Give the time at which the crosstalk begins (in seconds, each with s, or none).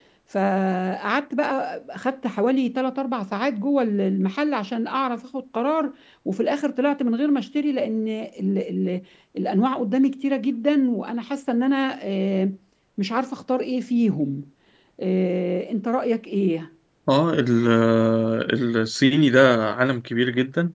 none